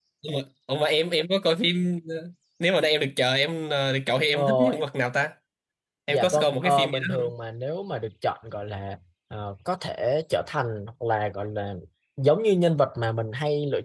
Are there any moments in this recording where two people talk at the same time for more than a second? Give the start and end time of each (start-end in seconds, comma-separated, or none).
6.1-7.3